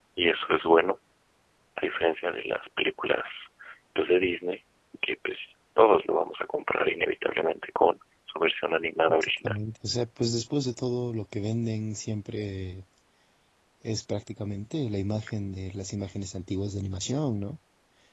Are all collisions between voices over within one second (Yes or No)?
Yes